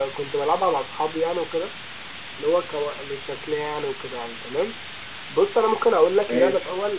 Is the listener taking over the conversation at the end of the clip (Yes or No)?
No